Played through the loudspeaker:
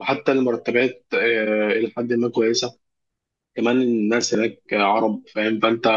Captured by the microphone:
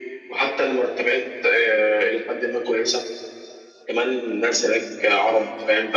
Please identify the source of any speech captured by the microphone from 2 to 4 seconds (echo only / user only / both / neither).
echo only